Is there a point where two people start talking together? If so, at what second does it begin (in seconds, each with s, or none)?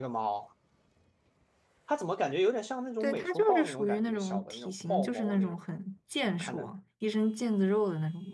3.0 s